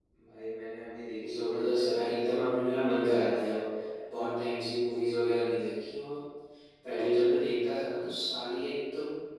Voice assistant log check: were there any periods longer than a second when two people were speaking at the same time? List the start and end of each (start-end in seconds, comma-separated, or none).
1.3-3.5